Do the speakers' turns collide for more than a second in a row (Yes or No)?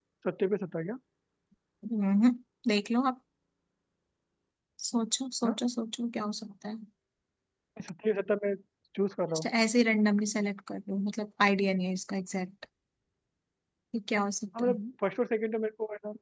No